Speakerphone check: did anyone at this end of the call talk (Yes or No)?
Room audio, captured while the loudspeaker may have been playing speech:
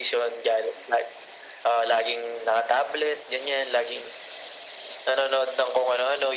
No